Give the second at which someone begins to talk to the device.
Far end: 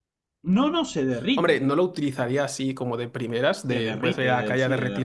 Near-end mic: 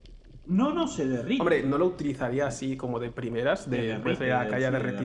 none

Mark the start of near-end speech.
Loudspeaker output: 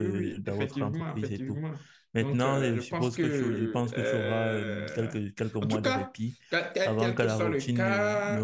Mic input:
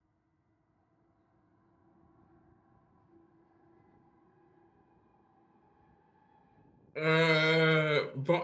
7.0 s

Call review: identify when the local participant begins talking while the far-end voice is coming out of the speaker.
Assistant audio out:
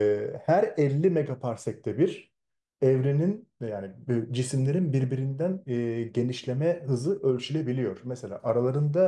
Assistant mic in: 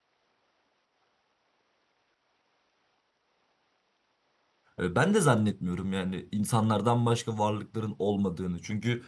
4.8 s

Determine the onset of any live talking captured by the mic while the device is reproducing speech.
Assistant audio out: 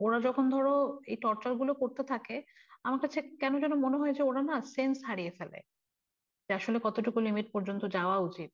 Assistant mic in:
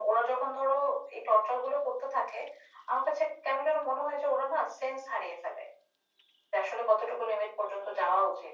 none

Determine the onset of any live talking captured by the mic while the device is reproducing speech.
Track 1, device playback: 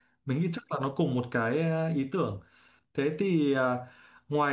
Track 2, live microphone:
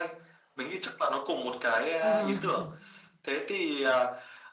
2.0 s

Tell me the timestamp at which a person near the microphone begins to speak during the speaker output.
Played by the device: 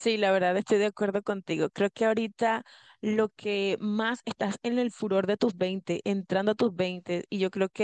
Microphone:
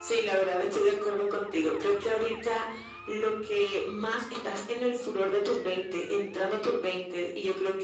none

